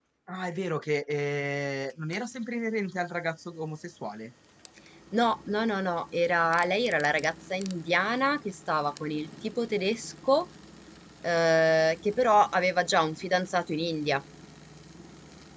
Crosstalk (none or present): none